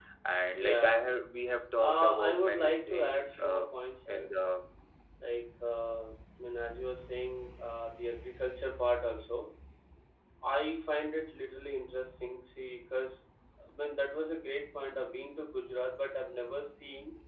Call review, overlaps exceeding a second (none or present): present